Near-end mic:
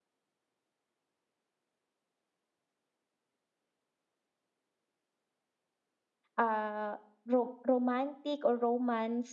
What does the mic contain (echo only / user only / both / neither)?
user only